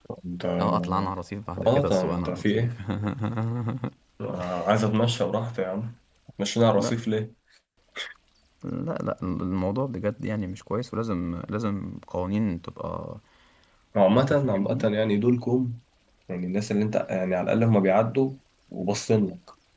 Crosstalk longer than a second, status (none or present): present